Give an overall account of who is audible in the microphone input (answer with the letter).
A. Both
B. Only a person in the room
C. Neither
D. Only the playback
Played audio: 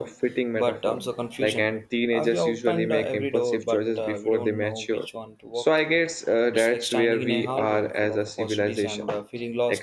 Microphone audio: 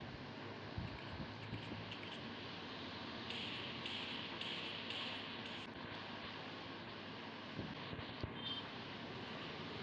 C